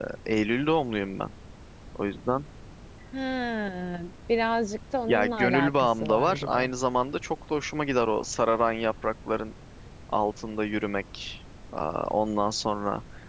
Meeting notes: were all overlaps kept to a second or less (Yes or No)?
No